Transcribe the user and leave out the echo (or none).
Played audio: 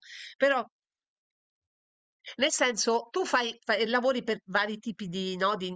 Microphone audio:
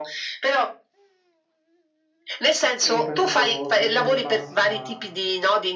e io penso che in linea di massima